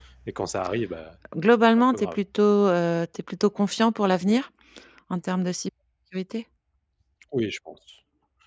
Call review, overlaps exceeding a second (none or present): none